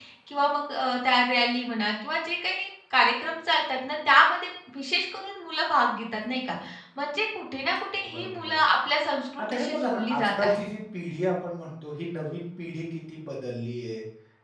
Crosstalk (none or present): present